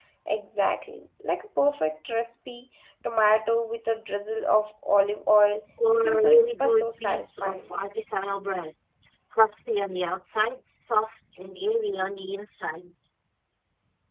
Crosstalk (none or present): present